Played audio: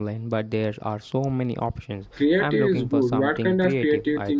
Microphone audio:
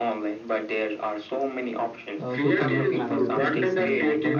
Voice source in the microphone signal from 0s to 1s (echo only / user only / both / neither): echo only